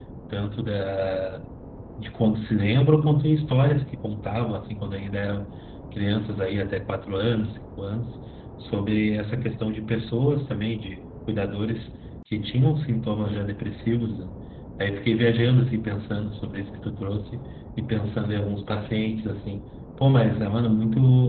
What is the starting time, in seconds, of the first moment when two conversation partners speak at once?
none

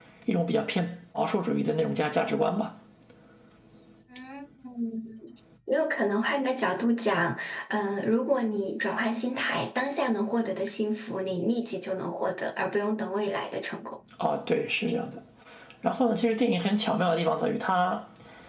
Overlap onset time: none

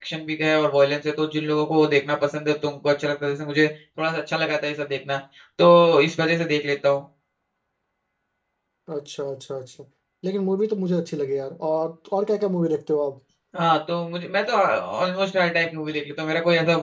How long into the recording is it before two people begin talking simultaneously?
none

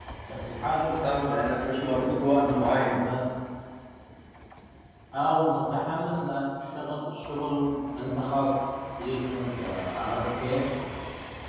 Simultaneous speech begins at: 1 s

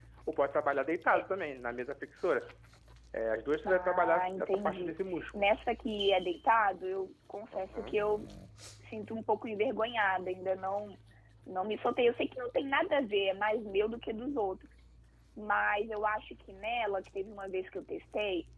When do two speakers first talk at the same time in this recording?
4 s

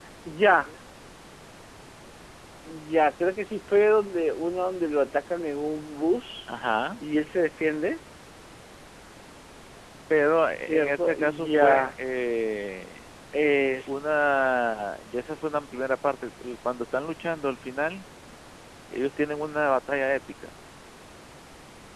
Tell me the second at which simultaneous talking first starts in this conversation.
11 s

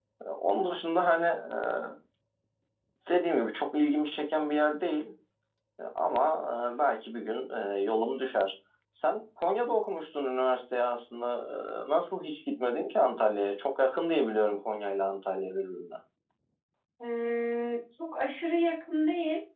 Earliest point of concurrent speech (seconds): none

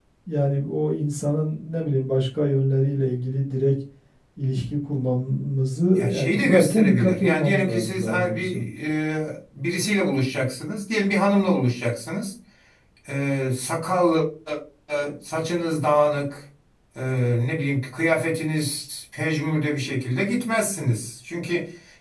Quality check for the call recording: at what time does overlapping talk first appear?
6 s

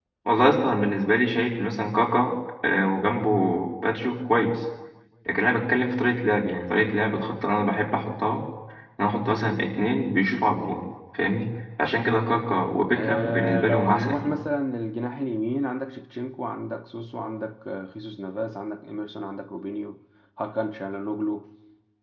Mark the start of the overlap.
13 s

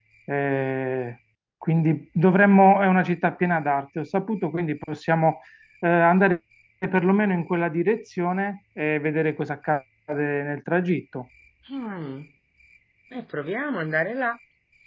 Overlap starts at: none

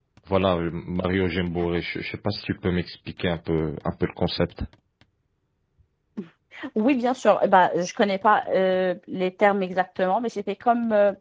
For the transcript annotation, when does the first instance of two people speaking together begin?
none

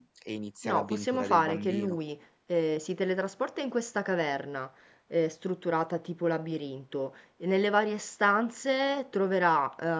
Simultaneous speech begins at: 1 s

